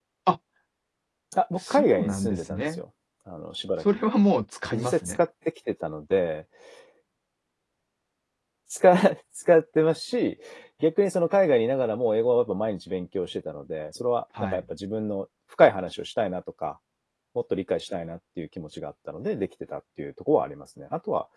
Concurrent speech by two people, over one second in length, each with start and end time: 1.6-2.8

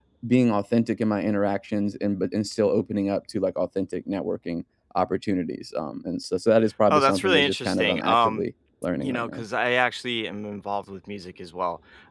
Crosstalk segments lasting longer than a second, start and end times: 6.9-8.4

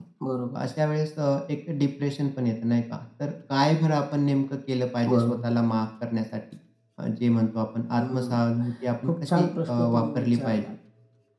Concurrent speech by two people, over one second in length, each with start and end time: 9.0-10.6

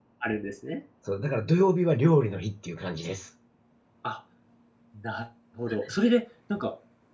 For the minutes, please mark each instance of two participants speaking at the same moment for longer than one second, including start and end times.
none

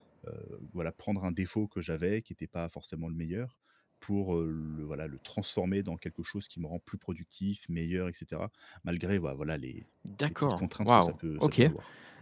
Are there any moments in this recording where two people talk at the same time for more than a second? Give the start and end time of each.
10.4-11.6

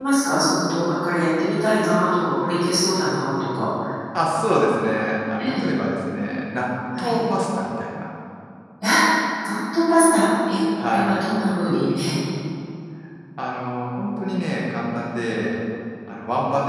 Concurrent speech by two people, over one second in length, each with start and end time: none

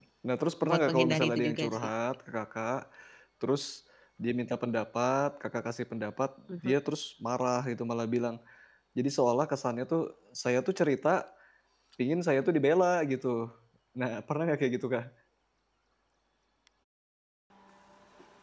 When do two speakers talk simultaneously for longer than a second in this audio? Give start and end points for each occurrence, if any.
0.6-1.9

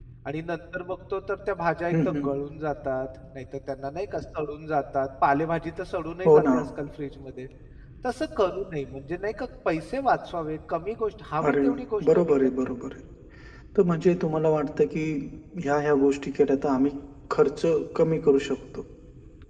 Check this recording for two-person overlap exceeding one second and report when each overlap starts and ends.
11.5-12.8

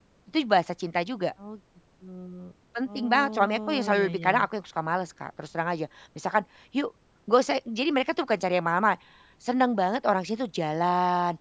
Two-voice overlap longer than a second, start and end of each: 2.9-4.3

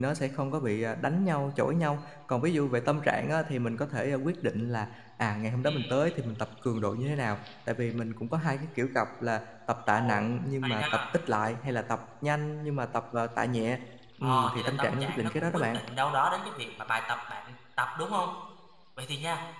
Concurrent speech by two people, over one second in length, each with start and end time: 14.2-15.8

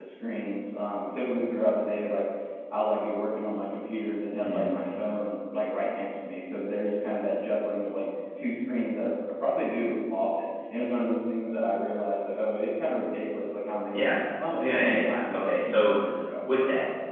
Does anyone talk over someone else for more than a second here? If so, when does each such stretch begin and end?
14.6-16.0

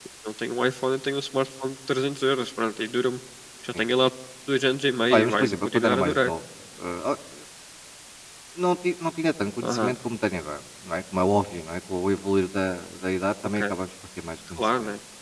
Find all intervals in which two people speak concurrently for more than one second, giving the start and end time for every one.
5.1-6.3

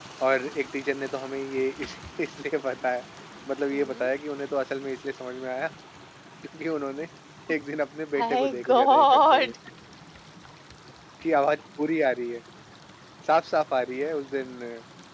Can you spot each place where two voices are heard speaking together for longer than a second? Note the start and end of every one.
8.2-9.5

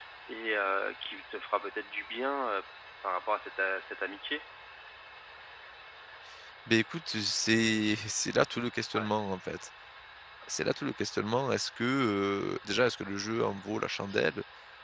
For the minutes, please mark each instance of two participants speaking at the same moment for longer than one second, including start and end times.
none

